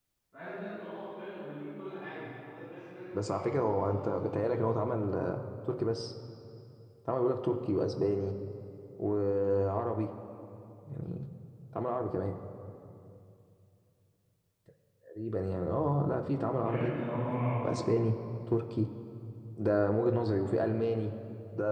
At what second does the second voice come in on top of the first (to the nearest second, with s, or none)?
3 s